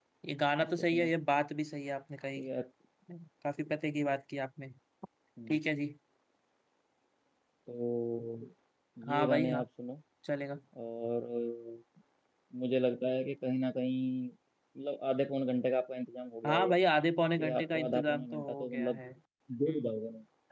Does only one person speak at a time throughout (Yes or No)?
No